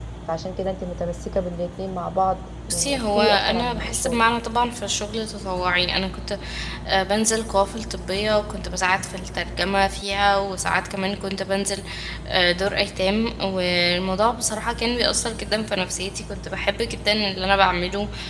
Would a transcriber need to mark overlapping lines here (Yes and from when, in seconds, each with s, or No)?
Yes, from 2.7 s